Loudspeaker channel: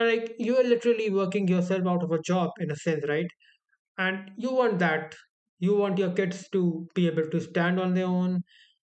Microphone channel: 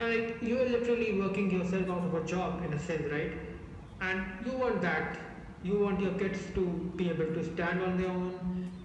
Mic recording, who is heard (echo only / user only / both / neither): echo only